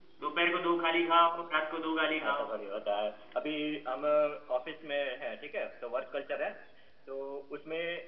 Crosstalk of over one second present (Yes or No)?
No